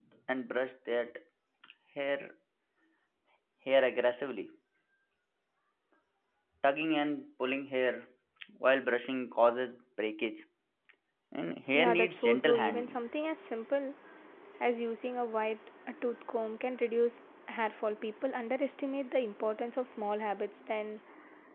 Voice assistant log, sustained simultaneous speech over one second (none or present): present